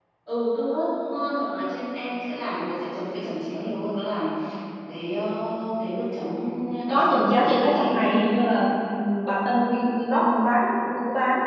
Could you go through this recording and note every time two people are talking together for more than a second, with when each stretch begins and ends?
6.9-8.1

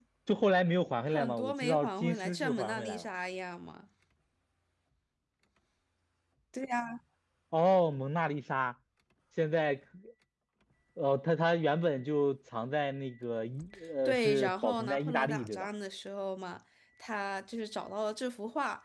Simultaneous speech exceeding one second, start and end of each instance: 1.1-3.0, 14.0-15.7

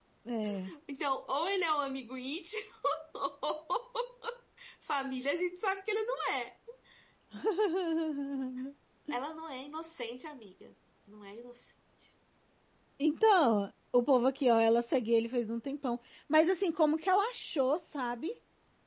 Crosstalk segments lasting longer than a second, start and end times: none

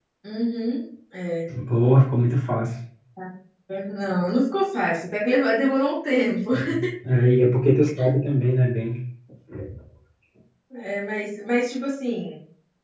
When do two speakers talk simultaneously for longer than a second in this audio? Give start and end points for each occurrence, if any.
none

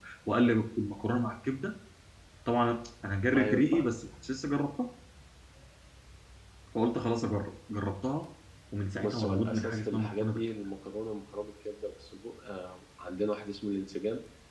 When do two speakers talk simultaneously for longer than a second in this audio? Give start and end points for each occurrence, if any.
9.0-10.4

